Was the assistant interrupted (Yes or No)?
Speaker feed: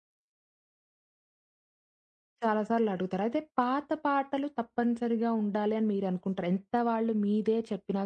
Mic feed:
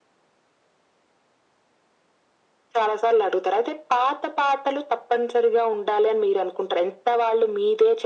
No